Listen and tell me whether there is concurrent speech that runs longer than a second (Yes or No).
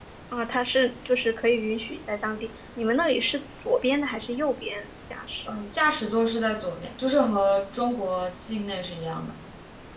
No